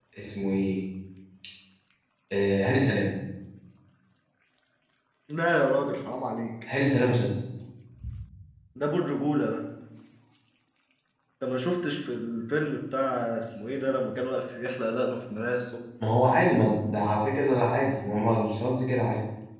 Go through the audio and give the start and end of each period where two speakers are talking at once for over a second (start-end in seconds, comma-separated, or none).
none